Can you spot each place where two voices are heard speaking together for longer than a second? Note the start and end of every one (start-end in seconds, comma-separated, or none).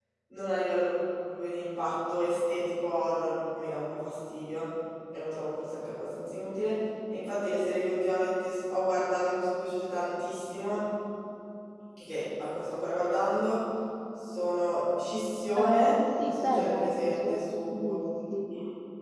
15.6-17.9